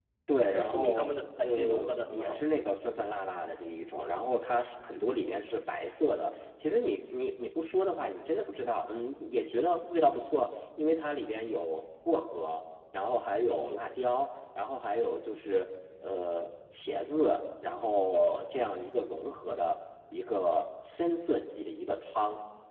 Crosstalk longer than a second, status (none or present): present